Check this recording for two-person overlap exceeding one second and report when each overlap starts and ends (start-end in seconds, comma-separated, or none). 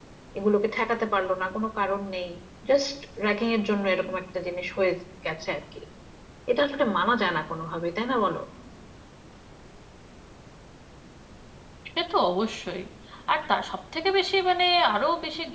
none